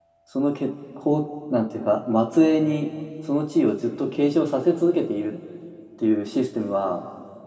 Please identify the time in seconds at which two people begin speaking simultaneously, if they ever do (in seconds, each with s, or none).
none